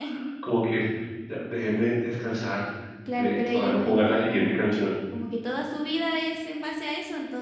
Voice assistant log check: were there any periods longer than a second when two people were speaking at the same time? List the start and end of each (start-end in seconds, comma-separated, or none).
3.1-4.6